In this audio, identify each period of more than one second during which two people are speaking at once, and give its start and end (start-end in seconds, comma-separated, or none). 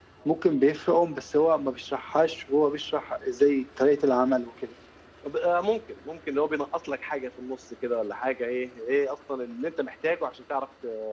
none